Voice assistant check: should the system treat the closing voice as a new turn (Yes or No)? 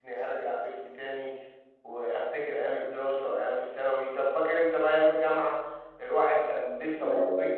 No